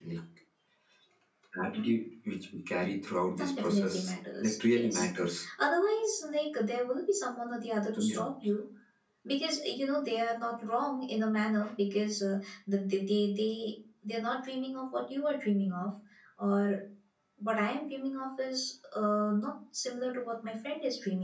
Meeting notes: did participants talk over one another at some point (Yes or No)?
Yes